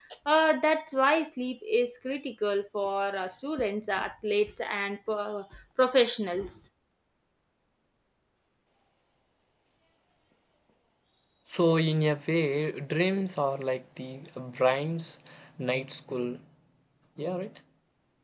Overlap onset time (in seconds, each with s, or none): none